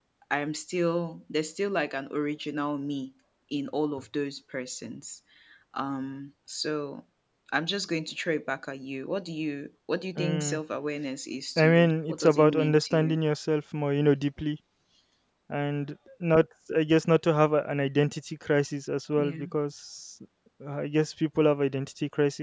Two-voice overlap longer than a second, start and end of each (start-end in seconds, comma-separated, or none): 11.6-13.2